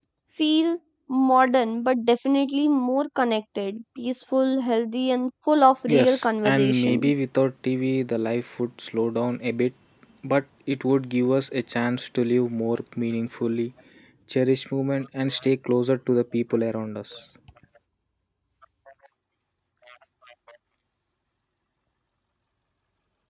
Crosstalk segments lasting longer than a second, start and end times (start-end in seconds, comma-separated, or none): 5.9-7.1